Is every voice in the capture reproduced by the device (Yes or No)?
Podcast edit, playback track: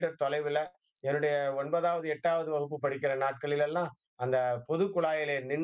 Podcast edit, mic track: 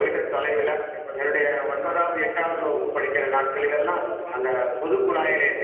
No